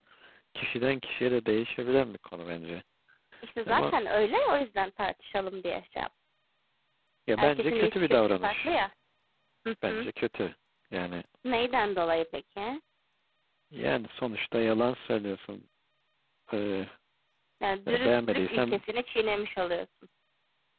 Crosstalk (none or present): present